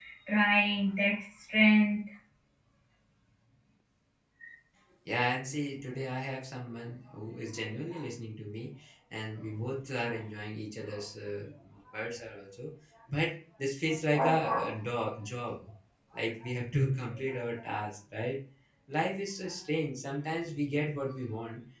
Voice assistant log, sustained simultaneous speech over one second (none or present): none